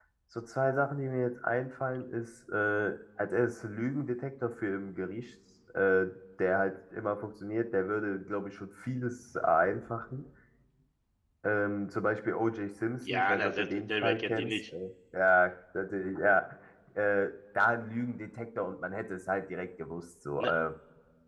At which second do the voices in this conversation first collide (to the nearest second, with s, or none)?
13 s